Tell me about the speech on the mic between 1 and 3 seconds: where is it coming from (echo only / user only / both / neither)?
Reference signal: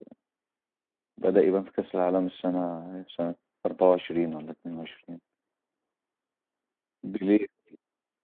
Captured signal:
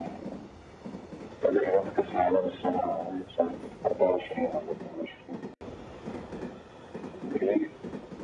echo only